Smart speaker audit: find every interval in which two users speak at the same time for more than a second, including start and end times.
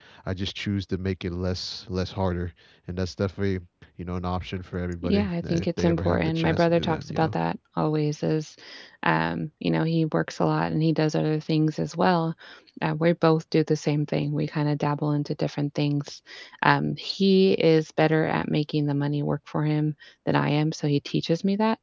5.0-7.4

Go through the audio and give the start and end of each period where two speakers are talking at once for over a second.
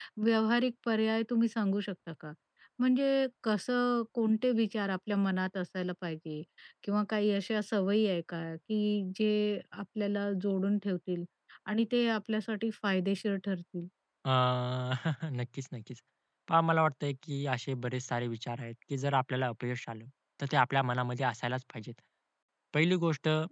none

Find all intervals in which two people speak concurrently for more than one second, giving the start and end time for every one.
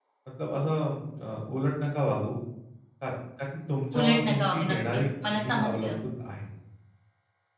4.0-6.0

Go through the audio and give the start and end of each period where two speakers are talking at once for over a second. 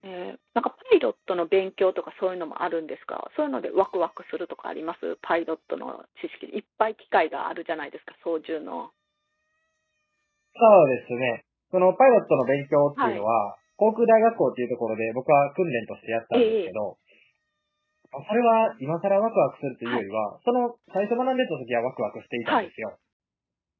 none

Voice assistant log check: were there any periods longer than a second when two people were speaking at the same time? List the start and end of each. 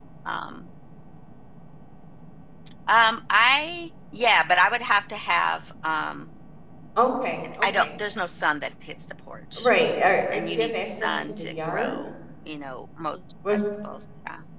10.3-12.0

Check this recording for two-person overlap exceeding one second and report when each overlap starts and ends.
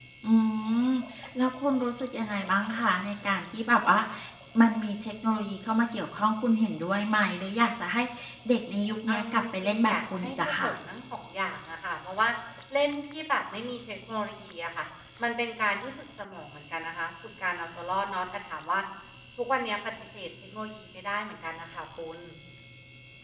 9.1-10.7

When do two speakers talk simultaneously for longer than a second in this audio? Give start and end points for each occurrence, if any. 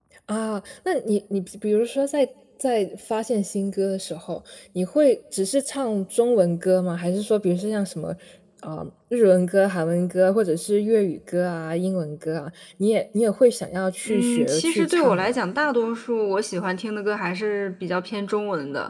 14.1-15.4

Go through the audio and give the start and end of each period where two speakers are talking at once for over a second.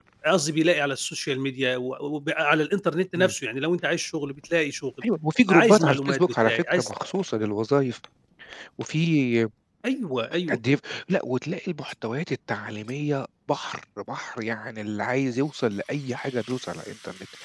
5.5-6.9

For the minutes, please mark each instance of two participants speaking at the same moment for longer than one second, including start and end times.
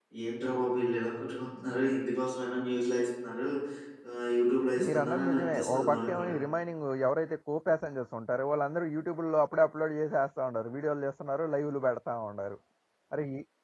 4.8-6.4

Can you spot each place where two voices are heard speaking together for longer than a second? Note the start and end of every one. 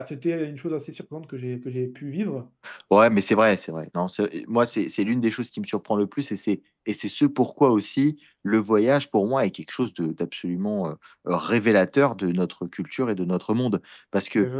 none

